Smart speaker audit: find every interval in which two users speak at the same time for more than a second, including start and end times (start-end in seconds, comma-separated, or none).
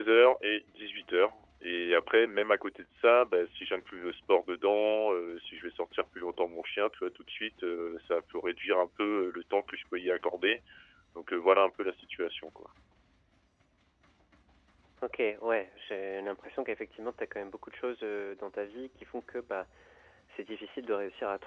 none